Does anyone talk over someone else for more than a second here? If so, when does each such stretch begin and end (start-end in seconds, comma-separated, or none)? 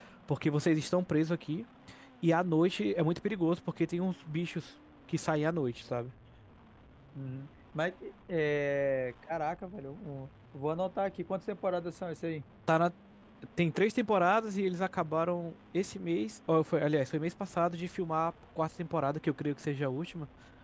none